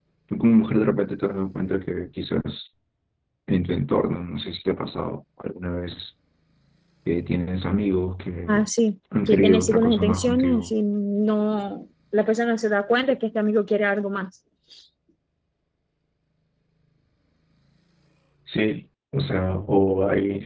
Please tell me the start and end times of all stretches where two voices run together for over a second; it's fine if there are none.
9.3-10.7

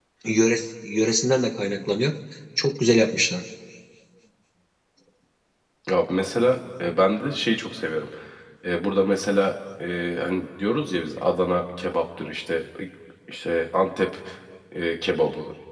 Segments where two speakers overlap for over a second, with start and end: none

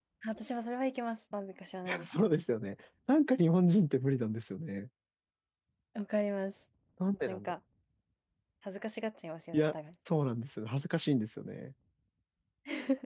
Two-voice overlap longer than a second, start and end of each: none

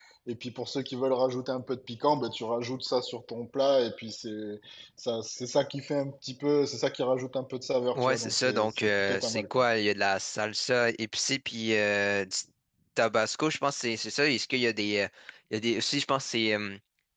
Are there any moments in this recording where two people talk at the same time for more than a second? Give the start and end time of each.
8.0-9.6

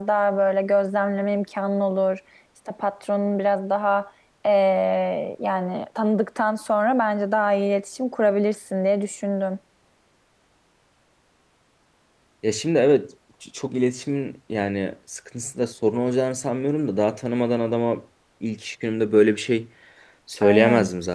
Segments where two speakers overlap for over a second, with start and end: none

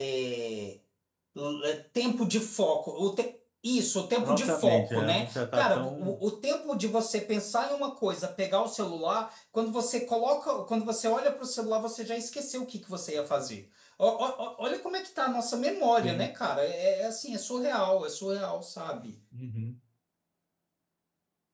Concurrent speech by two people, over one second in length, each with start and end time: 4.2-6.2

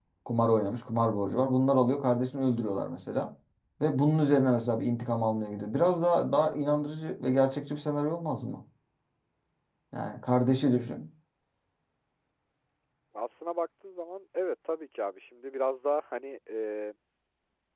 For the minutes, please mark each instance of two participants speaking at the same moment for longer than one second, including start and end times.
none

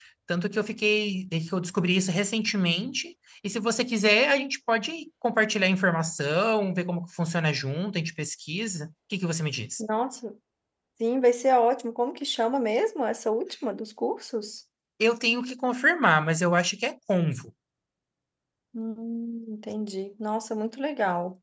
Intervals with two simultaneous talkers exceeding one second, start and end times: none

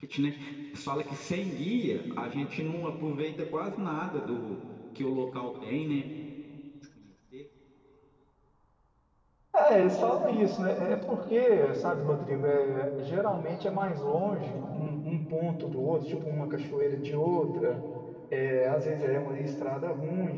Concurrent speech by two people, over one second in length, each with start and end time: none

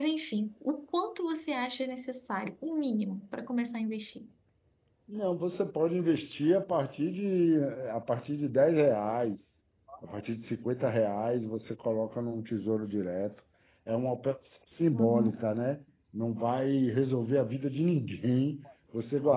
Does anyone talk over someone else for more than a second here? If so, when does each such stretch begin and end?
none

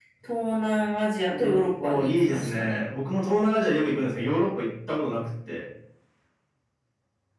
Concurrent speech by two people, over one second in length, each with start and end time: 1.3-2.8

